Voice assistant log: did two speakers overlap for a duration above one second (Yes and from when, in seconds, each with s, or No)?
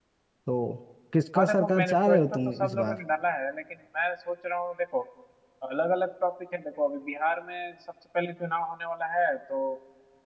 Yes, from 1.4 s